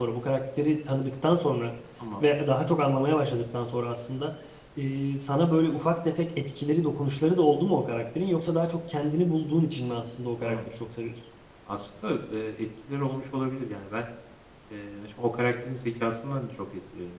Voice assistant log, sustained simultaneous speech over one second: none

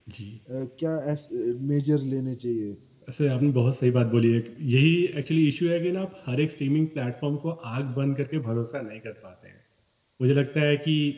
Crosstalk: none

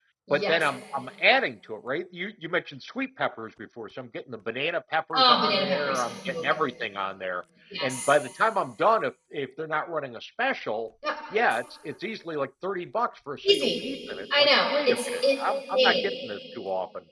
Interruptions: present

